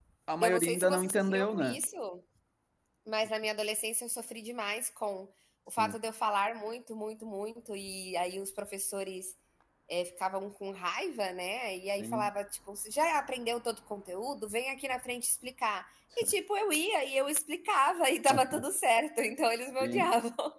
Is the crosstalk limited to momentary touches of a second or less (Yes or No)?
No